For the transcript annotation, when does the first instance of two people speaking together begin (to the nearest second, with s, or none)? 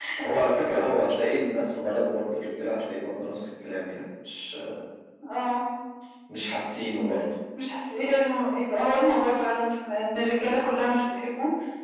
none